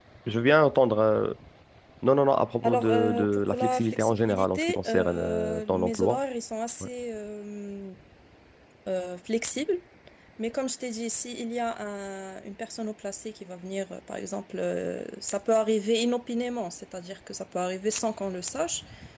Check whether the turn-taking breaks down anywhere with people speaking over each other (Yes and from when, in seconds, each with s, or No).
Yes, from 2.6 s